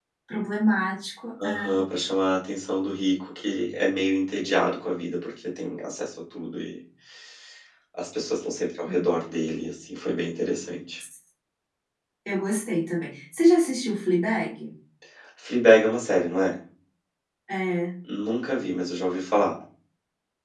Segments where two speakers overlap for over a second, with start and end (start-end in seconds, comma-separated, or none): none